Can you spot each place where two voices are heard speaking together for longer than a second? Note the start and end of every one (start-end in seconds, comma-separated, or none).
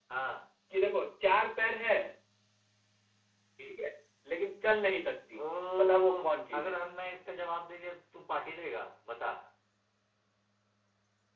none